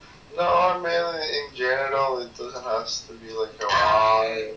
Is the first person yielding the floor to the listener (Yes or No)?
No